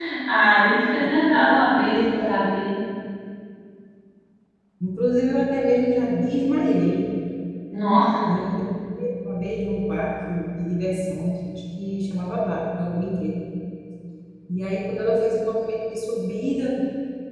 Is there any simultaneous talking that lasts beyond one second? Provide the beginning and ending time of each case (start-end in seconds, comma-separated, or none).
1.0-2.5